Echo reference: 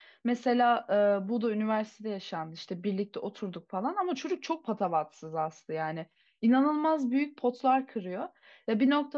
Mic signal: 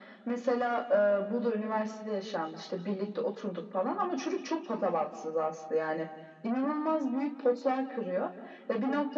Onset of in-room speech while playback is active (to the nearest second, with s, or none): none